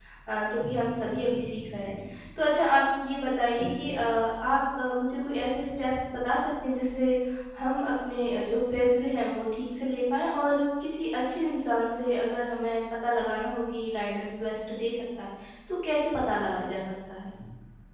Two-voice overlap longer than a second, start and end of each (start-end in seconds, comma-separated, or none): 0.6-1.9